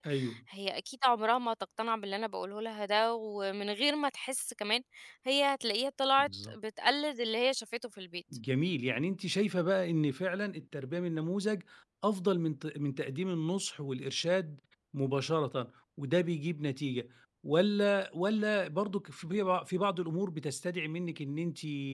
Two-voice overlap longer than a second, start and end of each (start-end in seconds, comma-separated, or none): none